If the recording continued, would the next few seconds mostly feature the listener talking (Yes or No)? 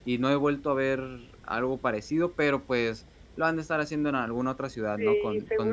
Yes